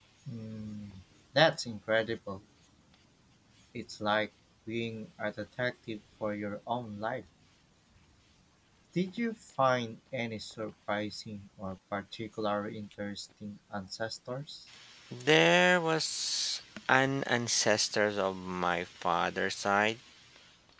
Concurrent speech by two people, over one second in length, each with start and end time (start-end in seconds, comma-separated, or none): none